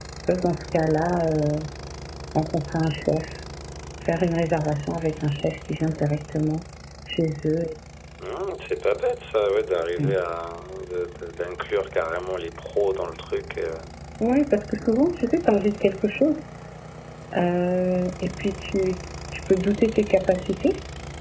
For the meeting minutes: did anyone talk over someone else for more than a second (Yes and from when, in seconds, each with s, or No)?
No